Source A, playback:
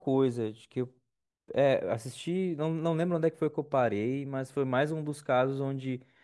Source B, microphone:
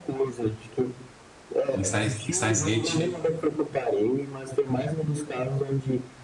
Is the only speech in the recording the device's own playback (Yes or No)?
No